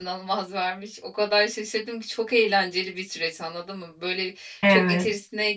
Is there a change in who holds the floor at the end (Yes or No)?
No